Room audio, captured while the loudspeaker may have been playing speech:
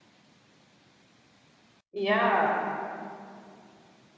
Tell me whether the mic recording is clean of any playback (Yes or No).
Yes